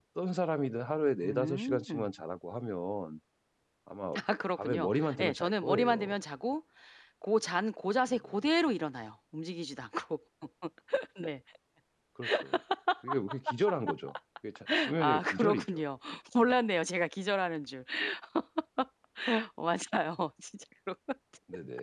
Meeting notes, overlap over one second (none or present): present